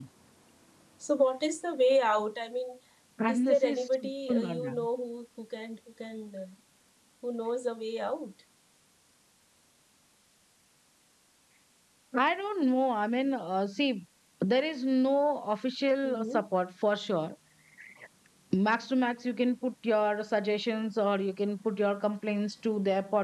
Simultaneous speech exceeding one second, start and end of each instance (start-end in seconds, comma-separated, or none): 3.3-4.9